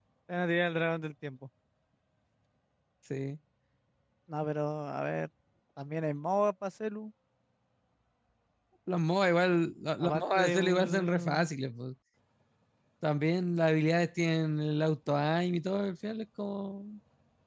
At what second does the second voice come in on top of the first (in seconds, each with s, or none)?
10.0 s